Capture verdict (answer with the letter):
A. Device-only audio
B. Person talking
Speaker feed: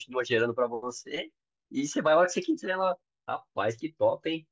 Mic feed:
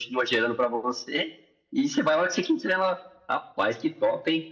A